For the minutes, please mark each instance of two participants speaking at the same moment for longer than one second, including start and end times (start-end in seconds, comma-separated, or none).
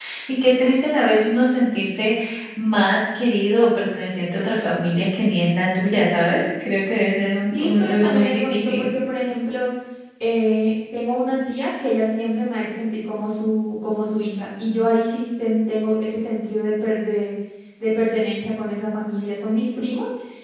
7.5-8.9